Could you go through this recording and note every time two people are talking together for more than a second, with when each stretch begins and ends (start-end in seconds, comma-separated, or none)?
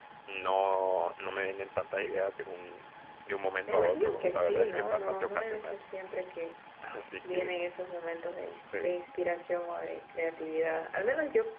3.7-5.8